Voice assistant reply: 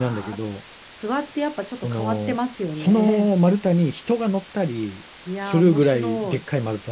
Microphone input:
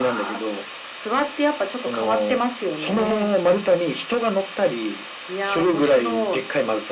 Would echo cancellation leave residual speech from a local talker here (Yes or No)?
No